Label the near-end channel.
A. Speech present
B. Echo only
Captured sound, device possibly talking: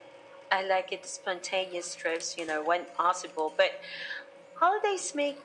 B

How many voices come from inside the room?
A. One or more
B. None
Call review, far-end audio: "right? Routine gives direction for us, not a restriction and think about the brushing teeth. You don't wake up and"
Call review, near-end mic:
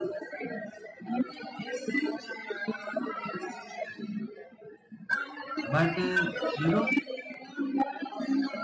A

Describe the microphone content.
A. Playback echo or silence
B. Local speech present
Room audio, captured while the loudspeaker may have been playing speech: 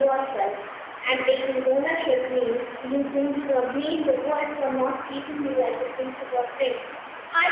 A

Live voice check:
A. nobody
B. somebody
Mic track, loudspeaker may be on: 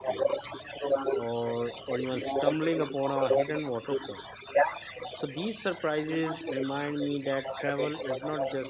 B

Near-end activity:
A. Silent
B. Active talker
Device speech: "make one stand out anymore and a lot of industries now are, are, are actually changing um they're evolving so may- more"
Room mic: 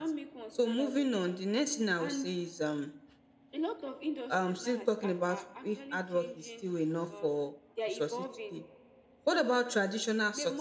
B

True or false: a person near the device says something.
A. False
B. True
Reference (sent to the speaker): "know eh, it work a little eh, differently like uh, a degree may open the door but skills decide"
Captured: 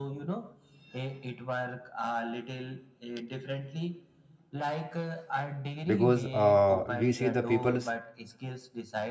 B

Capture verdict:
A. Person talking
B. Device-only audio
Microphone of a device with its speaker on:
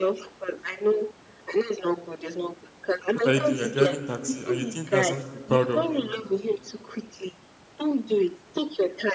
A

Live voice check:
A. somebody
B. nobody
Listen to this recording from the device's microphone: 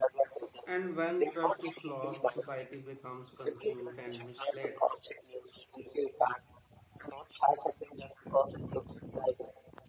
A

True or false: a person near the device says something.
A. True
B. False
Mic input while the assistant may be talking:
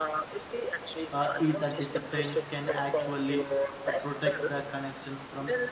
A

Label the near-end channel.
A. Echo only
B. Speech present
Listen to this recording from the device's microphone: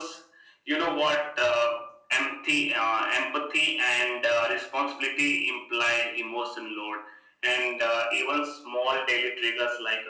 A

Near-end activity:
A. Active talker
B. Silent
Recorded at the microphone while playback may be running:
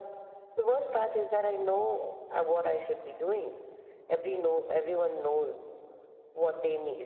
B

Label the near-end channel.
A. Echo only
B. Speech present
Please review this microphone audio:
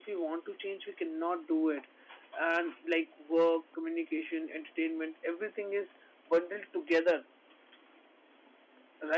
B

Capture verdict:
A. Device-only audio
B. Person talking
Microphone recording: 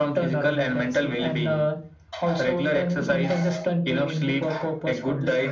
A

